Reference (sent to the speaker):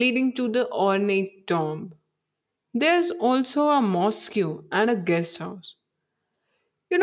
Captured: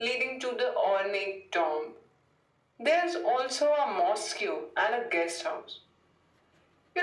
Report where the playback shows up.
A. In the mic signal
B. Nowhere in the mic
A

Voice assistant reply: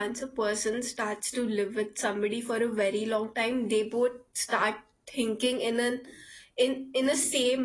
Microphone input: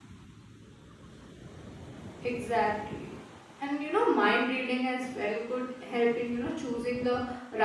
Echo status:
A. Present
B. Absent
B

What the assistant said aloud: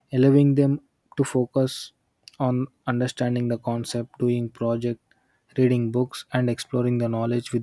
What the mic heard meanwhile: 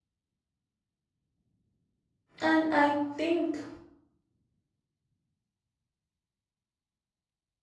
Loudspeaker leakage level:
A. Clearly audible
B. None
B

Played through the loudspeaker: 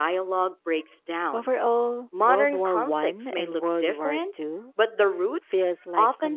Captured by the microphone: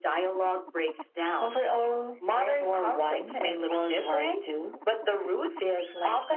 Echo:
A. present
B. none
A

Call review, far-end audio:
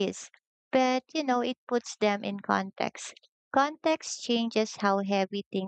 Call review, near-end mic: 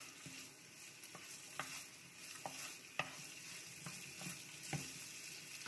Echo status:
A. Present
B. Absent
B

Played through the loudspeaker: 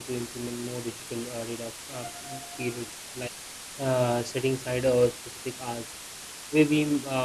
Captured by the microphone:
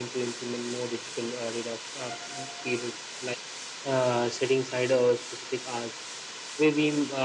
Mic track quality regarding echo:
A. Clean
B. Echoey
B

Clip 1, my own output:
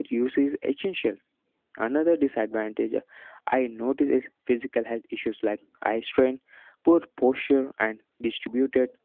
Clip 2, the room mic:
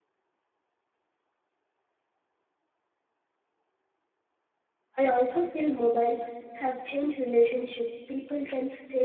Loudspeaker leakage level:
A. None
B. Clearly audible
A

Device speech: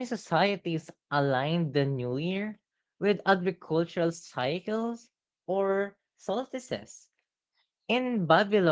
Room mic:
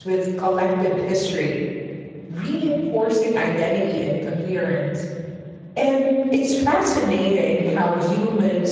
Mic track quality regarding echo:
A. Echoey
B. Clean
B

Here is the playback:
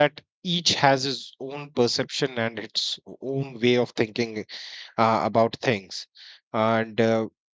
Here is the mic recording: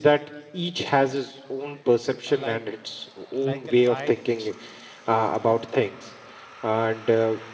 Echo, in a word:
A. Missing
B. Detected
B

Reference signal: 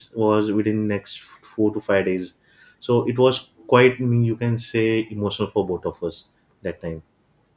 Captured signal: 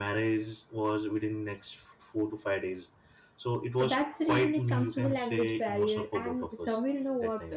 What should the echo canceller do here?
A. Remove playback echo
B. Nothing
A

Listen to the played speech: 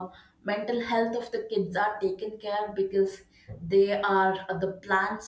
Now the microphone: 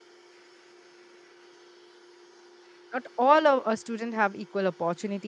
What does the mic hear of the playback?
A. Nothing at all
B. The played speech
A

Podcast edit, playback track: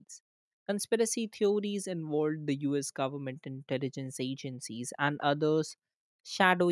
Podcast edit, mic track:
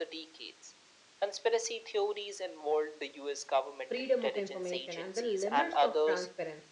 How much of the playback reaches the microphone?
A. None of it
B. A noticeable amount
B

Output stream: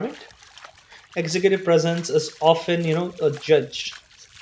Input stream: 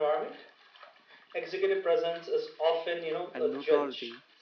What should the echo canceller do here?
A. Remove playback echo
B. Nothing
A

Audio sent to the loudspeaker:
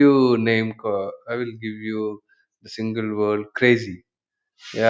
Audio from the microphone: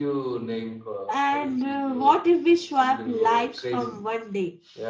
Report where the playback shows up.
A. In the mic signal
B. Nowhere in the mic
A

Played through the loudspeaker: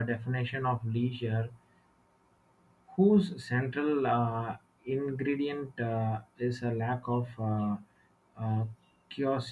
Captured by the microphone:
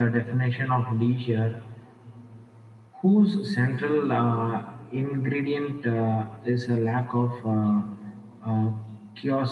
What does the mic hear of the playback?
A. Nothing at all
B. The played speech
B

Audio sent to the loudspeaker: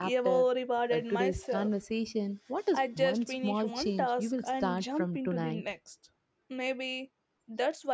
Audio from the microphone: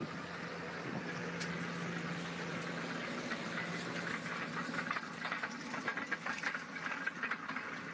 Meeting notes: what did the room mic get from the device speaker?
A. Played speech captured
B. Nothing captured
B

